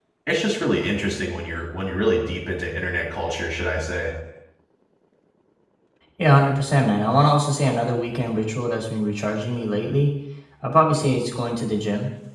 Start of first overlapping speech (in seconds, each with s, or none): none